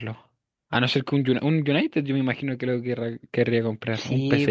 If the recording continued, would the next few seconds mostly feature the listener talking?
Yes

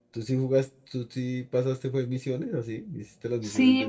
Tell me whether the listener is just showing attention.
No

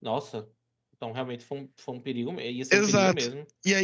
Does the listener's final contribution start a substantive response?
Yes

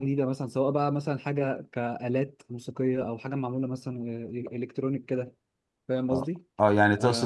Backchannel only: No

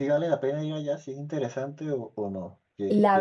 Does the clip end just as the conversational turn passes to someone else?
Yes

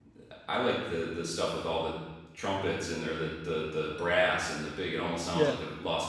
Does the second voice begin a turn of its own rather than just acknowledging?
No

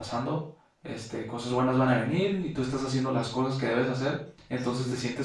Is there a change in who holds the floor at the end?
No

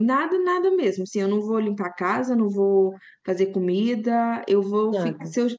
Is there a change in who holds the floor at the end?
No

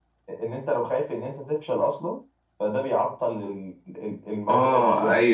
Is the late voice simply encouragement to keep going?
No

